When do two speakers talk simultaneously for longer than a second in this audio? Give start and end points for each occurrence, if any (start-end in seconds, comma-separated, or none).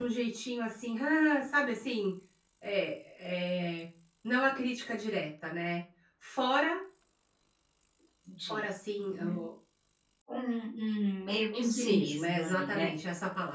11.5-12.9